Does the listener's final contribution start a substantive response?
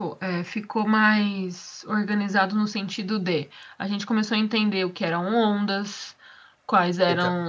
No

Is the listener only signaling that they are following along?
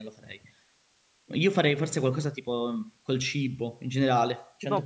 No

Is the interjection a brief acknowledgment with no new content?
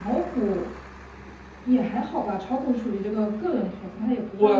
No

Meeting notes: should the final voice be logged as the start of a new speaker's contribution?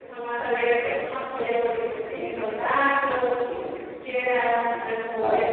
No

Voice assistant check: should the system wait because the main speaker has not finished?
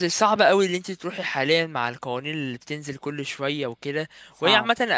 Yes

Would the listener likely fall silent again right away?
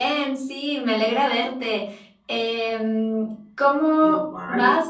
Yes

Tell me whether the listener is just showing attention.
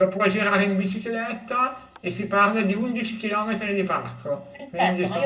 No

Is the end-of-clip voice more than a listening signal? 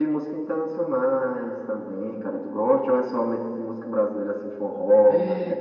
Yes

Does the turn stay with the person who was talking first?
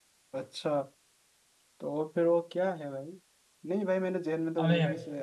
Yes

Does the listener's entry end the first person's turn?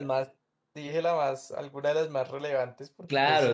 Yes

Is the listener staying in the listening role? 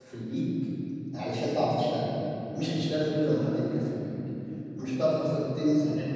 Yes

